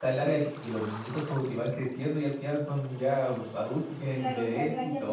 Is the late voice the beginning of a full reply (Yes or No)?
Yes